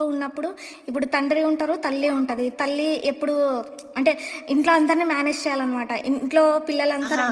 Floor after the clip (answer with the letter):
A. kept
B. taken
A